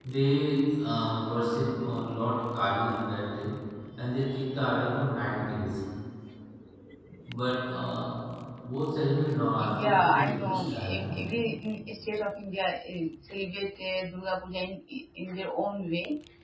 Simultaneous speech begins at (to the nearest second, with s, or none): 10 s